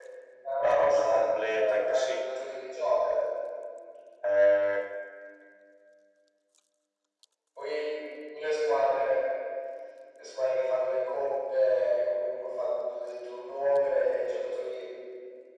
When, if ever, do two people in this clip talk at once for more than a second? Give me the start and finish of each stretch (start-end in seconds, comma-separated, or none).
0.6-2.2